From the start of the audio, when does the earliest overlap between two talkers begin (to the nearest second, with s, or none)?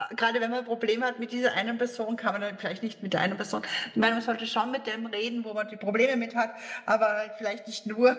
none